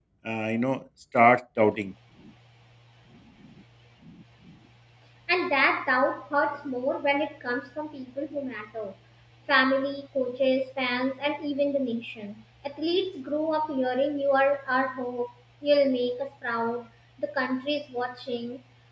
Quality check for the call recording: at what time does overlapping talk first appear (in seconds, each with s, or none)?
none